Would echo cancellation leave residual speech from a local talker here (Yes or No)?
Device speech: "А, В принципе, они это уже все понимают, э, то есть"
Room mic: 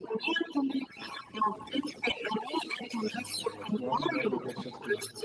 Yes